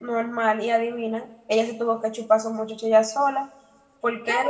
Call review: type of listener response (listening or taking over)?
taking over